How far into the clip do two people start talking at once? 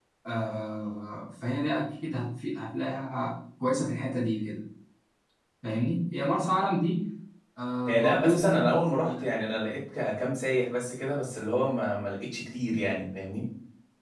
7.9 s

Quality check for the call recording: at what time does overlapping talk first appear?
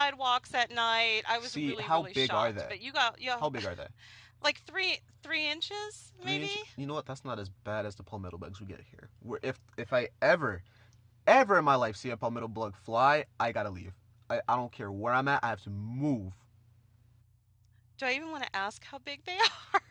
1.4 s

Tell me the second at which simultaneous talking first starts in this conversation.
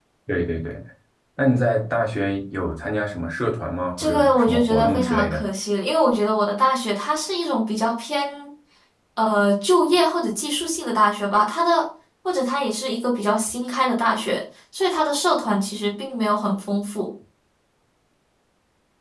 4.0 s

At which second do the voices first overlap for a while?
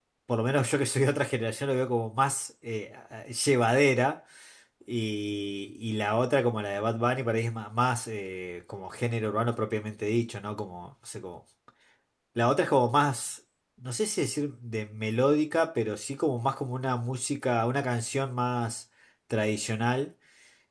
none

